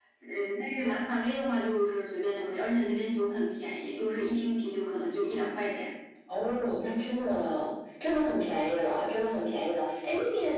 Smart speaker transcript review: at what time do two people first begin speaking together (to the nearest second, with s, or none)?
none